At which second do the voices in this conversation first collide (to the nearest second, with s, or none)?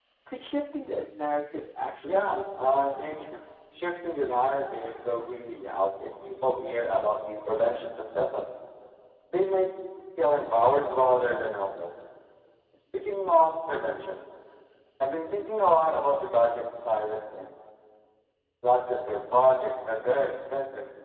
2 s